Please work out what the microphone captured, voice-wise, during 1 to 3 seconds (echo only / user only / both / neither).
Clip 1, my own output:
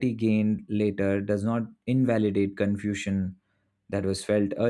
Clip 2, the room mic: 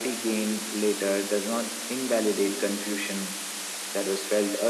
echo only